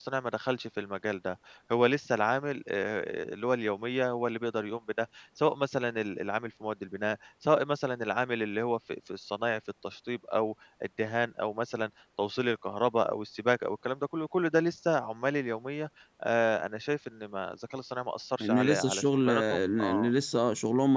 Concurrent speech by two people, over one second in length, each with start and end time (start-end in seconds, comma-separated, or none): 18.4-20.1